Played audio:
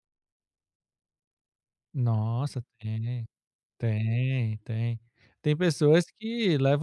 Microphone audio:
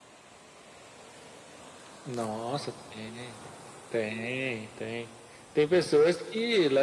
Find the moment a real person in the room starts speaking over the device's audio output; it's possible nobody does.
none

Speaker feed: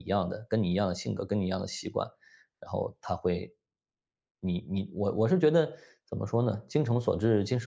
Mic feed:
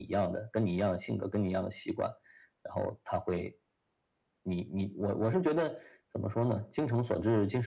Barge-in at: none

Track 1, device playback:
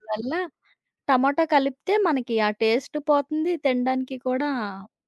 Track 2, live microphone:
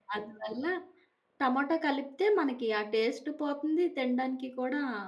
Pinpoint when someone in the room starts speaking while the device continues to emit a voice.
none

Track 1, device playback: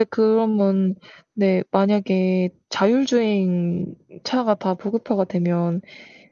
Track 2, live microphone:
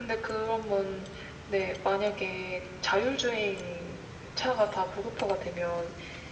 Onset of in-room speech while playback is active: none

